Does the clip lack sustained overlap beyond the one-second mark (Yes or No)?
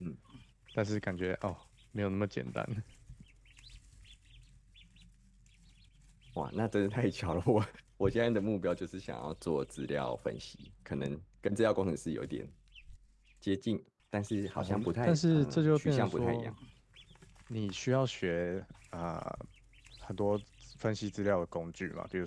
No